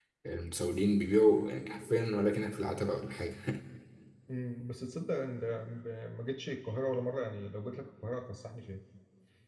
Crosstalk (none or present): none